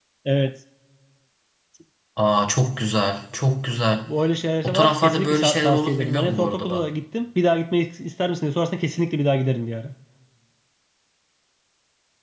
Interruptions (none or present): present